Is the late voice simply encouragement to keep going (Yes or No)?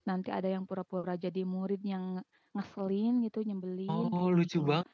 No